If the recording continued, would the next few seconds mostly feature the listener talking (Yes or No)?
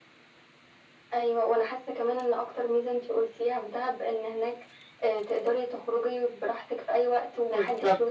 Yes